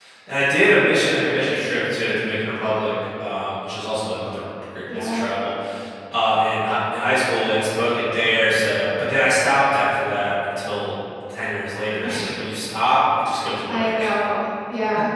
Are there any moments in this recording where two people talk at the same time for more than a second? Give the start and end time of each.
none

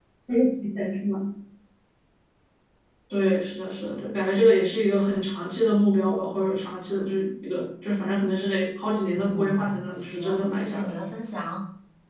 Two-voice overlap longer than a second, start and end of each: 9.1-10.9

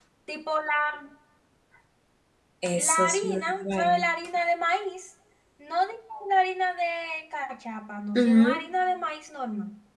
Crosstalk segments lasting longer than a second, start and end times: 2.7-4.0

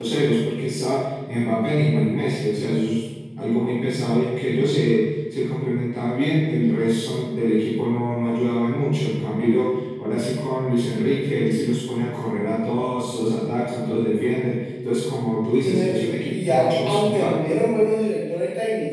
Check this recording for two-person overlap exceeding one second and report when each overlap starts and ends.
15.6-17.6

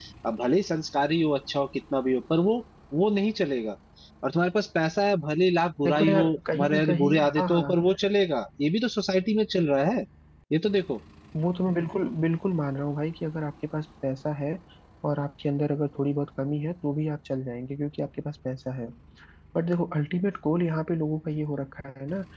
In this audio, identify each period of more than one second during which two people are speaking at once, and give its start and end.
5.8-7.7

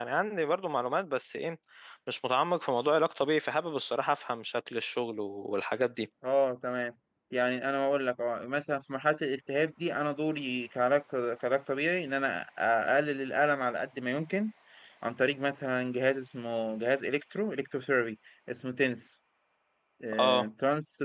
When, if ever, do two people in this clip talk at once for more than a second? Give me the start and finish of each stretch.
none

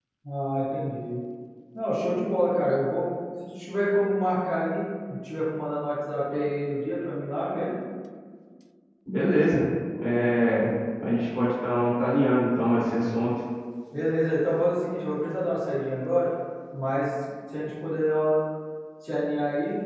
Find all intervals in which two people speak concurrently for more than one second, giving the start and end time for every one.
none

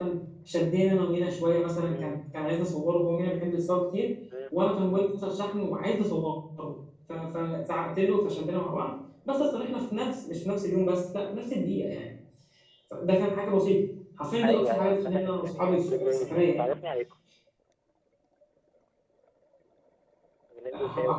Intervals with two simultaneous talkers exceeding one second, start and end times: 14.4-16.7

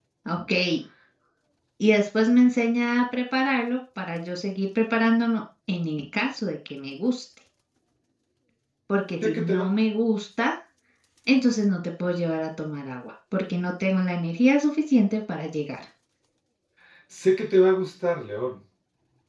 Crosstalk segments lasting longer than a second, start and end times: none

